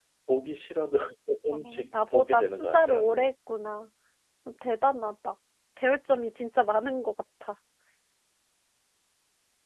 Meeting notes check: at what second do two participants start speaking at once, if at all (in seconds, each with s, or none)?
1.5 s